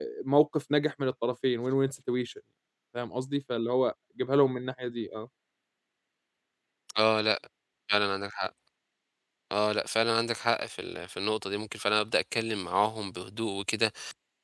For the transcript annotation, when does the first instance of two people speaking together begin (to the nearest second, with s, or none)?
none